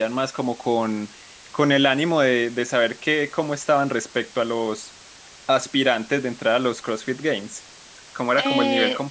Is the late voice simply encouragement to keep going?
No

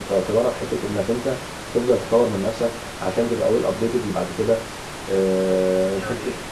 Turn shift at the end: No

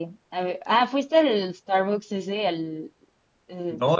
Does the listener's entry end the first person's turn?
Yes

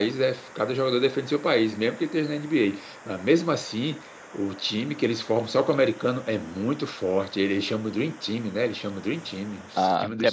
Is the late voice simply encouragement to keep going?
No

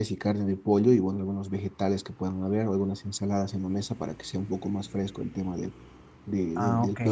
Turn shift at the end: Yes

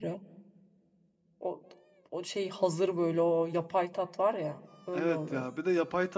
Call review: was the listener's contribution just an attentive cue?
No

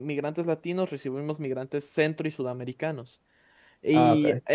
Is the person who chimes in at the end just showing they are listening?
Yes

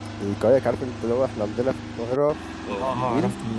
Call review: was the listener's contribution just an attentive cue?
No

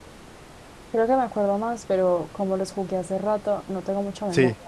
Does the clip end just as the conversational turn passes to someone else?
No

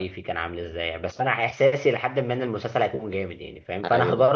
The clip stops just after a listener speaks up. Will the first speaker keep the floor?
Yes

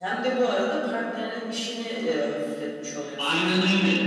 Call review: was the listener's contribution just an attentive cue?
No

